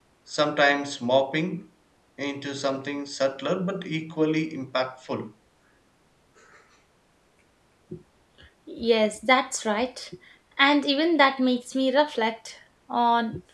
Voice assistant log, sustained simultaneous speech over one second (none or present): none